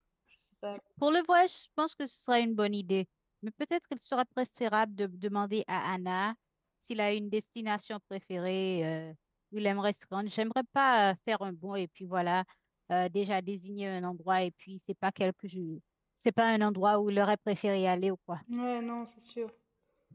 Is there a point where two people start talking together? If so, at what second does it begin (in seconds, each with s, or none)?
none